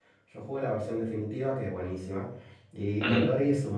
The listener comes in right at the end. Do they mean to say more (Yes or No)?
No